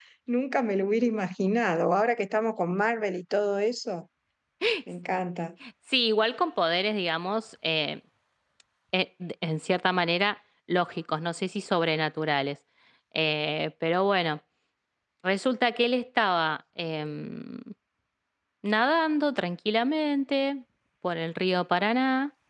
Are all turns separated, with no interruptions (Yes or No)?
Yes